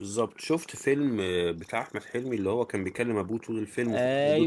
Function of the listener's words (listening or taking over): taking over